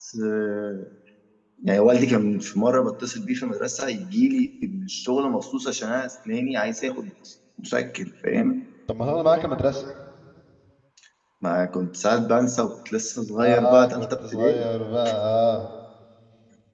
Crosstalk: present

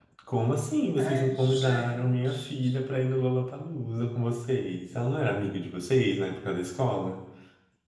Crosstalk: present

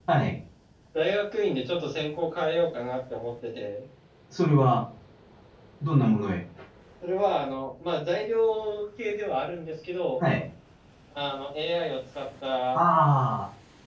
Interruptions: none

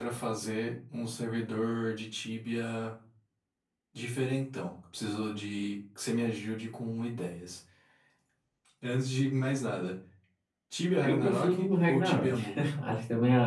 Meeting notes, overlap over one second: present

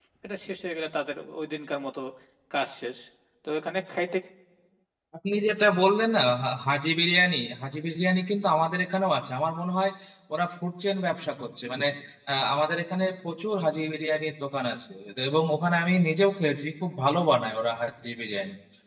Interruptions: none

